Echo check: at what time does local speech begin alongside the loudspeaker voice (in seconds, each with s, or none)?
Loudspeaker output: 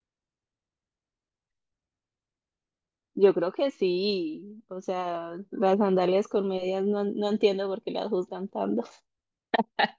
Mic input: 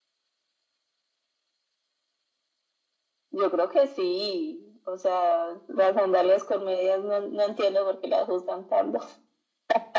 none